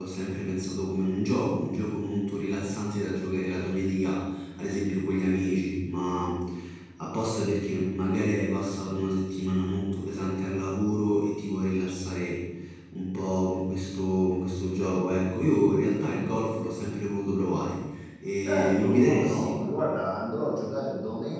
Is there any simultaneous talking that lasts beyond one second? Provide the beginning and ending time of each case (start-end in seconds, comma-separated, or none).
18.4-19.6